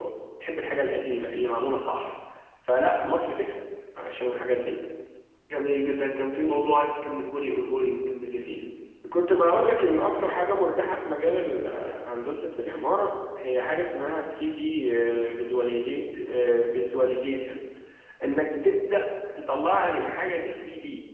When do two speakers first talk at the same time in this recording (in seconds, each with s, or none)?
none